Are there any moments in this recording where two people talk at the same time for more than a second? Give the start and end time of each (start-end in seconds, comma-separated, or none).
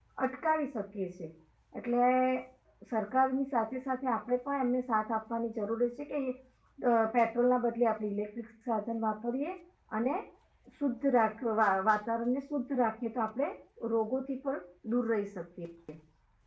none